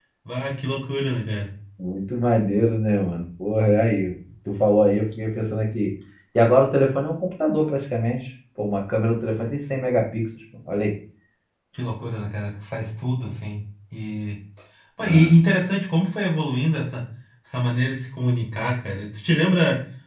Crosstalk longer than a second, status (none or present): none